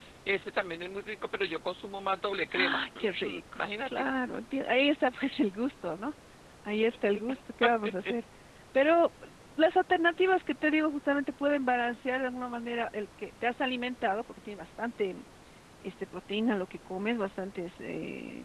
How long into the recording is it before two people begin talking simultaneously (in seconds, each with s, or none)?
2.5 s